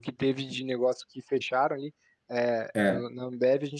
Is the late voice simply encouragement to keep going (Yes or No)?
Yes